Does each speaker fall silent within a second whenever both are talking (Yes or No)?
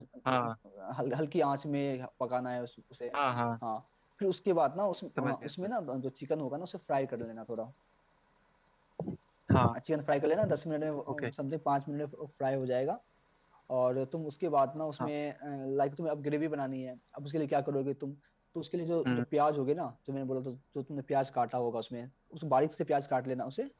Yes